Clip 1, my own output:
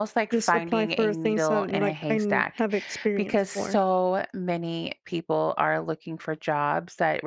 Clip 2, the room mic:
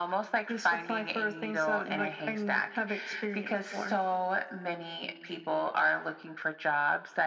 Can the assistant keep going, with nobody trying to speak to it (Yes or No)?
Yes